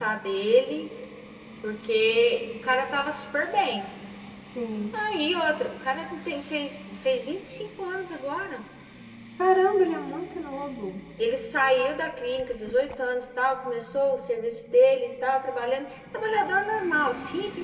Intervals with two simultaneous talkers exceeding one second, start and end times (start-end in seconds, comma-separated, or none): none